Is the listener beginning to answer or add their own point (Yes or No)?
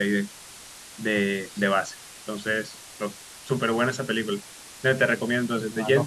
No